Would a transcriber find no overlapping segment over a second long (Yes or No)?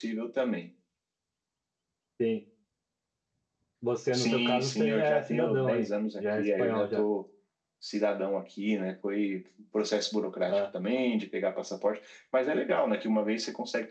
No